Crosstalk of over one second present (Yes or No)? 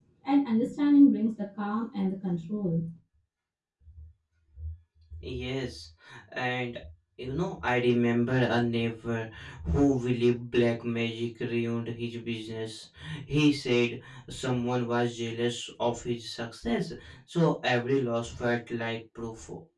No